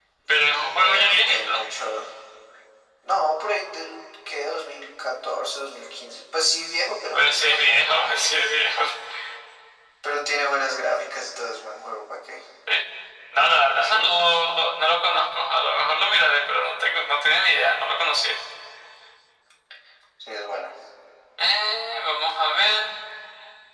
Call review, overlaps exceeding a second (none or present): present